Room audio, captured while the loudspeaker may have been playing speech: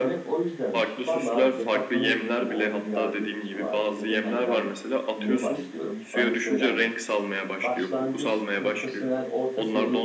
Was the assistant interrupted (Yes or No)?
Yes